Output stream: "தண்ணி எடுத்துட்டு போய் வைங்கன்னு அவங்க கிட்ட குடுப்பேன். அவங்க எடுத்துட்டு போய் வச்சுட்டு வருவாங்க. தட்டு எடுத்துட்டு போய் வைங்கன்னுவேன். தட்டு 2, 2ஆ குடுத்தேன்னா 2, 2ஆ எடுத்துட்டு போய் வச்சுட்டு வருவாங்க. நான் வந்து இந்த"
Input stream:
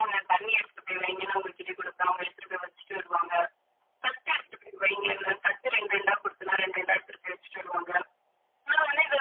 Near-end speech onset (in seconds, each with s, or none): none